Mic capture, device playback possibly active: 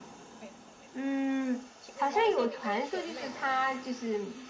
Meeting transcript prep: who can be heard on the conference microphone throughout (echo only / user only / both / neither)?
echo only